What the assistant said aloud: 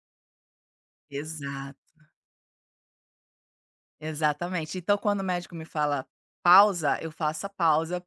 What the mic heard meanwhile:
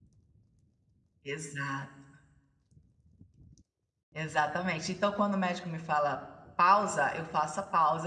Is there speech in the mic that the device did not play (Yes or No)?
No